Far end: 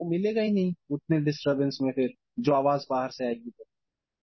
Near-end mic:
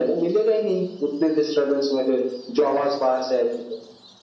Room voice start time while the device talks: none

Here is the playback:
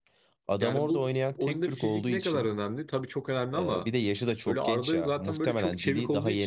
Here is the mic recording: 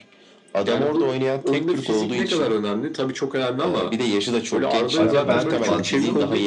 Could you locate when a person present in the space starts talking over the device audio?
5 s

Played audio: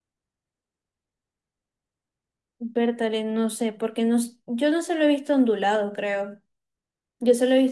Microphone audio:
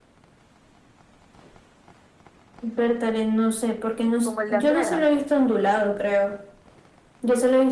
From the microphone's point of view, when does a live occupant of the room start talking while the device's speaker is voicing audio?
4 s

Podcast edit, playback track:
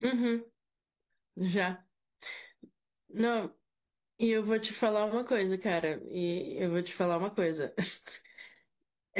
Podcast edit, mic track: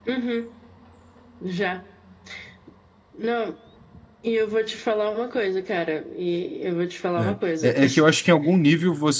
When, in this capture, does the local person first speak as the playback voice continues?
7 s

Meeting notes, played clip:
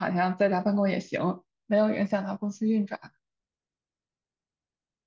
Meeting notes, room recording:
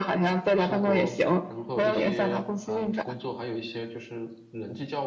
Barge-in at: 1 s

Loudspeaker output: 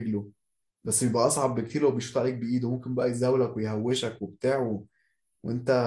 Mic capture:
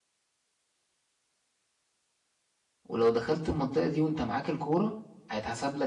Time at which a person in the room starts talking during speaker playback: 3 s

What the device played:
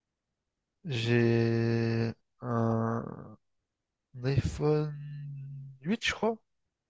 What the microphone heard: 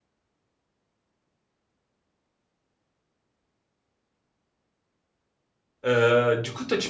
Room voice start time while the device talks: 6 s

